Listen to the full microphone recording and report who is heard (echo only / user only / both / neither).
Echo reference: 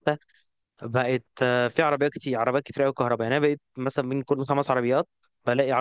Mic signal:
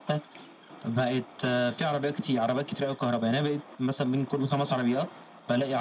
echo only